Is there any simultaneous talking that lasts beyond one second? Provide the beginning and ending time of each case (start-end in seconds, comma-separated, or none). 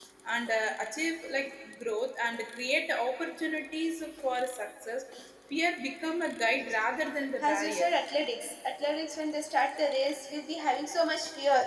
none